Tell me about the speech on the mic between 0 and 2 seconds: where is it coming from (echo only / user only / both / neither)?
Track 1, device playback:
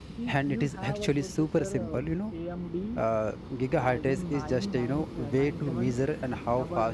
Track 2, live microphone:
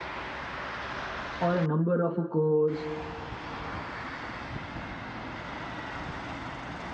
user only